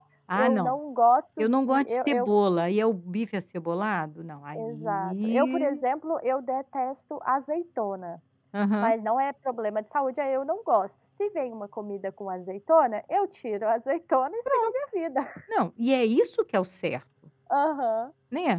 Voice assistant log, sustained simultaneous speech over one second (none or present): present